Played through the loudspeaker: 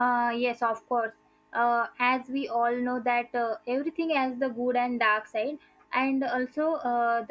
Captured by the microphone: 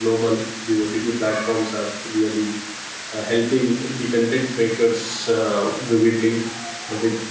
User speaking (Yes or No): Yes